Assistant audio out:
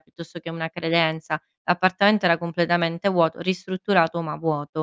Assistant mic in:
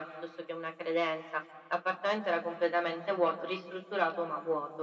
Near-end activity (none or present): none